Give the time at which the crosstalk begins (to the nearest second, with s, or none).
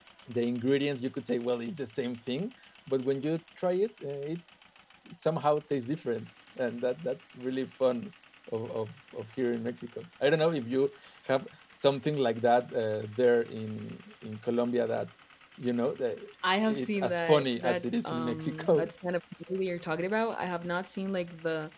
16 s